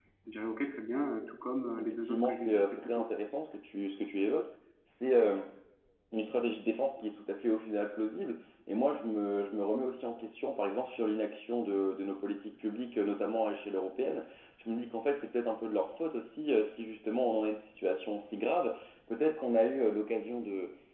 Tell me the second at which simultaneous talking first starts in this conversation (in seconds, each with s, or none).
1.8 s